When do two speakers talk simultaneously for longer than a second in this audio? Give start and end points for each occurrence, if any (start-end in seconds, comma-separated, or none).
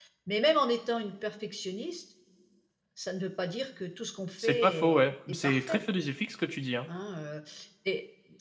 4.4-5.8